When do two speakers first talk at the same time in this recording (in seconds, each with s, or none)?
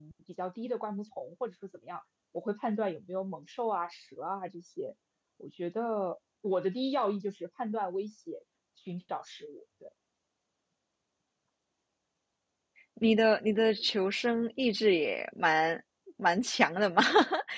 none